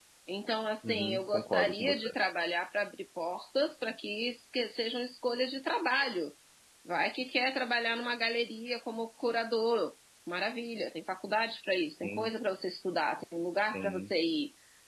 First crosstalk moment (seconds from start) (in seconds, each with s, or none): 0.8 s